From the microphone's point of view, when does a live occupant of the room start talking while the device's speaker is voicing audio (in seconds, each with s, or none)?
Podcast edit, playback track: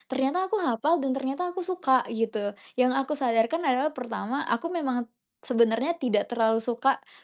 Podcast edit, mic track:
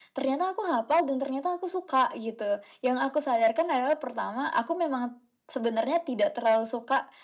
none